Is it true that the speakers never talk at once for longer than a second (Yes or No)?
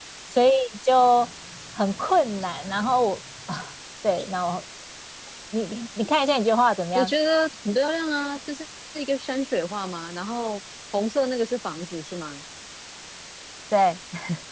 Yes